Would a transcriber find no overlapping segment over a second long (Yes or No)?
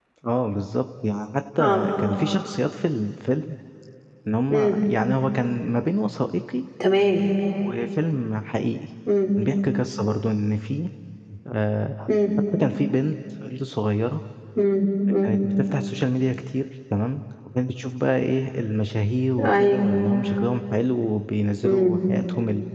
Yes